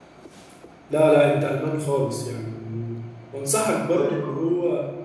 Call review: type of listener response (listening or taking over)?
listening